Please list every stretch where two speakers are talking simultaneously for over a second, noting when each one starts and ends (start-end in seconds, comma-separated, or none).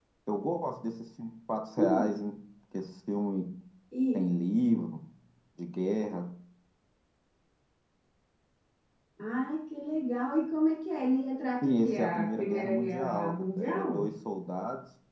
11.6-14.1